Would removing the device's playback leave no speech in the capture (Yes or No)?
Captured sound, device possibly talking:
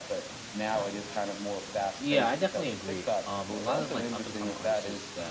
No